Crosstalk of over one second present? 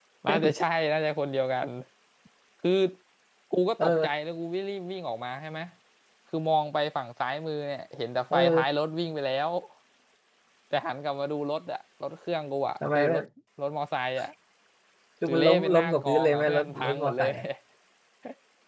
Yes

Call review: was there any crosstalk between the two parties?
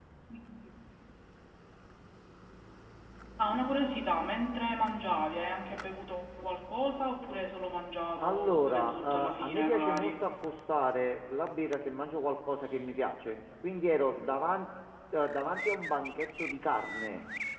Yes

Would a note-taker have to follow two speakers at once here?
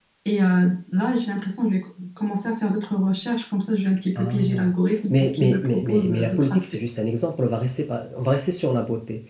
Yes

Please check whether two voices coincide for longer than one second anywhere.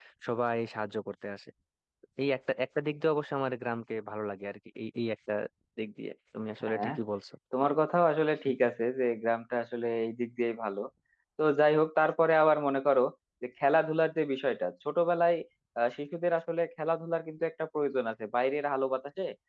No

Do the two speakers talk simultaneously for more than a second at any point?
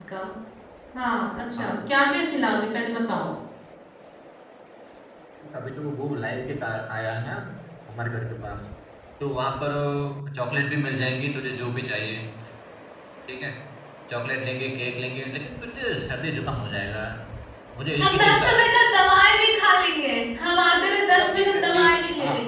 Yes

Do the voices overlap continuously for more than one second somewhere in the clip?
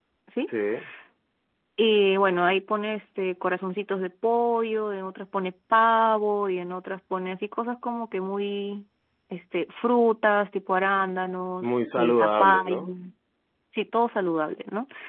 Yes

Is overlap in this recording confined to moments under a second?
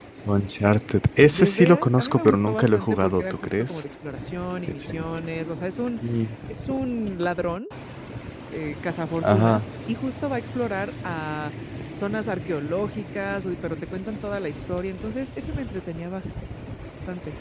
No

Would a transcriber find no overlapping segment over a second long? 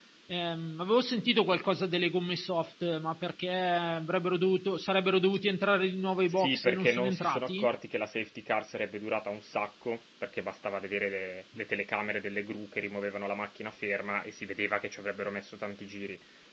No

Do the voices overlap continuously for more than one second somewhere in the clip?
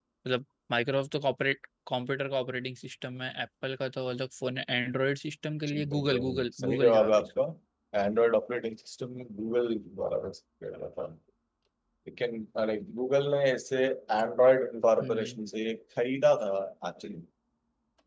Yes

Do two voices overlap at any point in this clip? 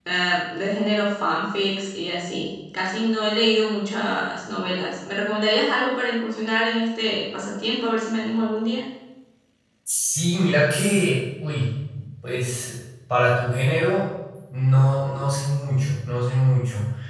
No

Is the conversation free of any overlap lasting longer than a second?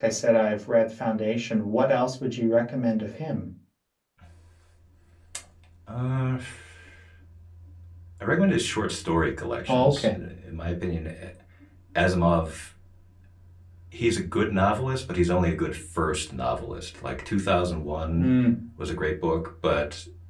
Yes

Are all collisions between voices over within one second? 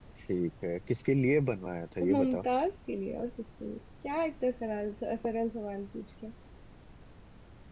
Yes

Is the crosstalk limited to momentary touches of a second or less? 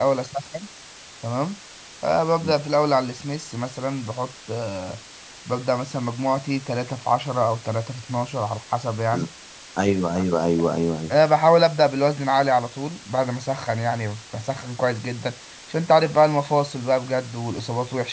Yes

